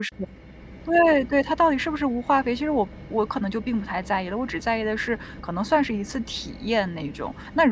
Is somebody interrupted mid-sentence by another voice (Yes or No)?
No